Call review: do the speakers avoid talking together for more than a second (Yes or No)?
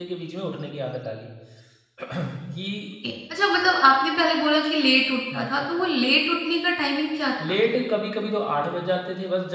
Yes